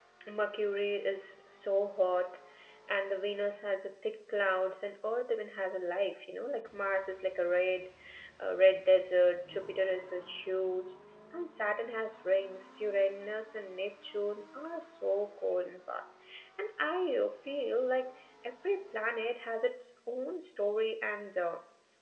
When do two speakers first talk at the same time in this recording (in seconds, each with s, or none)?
none